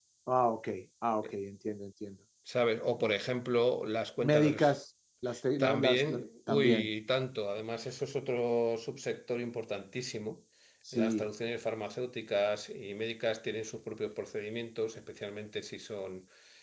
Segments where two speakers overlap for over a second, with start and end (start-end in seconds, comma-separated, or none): 5.6-6.9